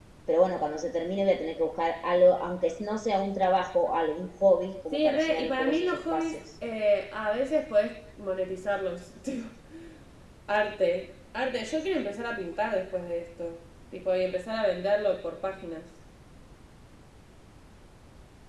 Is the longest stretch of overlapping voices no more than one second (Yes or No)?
No